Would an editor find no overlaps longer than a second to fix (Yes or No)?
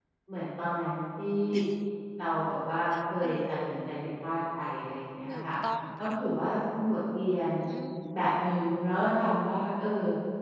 Yes